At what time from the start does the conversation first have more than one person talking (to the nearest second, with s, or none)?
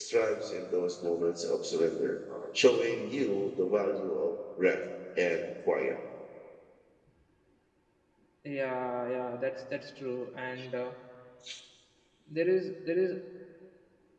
none